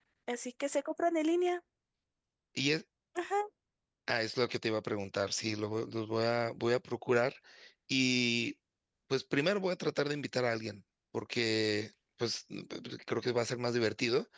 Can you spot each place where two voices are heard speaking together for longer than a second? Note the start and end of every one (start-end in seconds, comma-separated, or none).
none